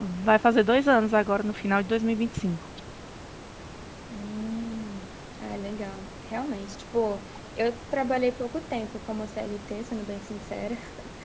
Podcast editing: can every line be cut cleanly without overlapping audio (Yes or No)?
Yes